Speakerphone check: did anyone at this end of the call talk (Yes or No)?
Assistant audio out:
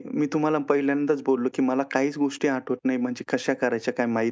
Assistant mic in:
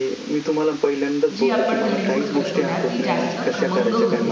Yes